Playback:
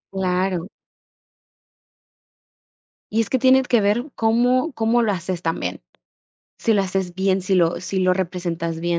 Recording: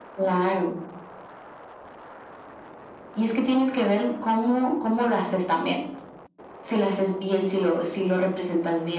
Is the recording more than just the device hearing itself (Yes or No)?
No